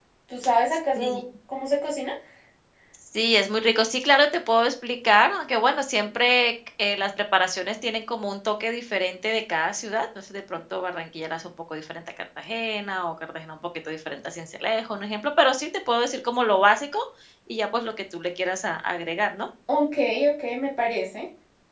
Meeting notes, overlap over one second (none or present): none